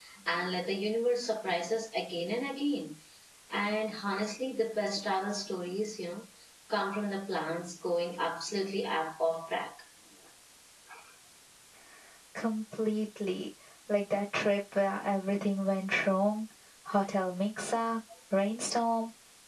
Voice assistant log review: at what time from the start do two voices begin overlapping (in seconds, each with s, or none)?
none